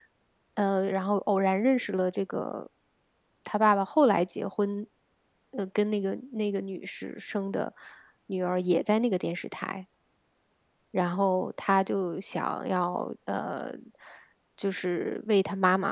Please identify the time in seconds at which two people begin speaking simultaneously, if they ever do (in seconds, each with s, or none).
none